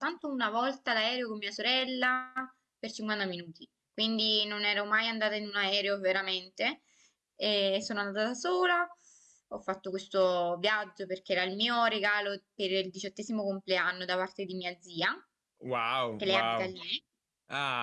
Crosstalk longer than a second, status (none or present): none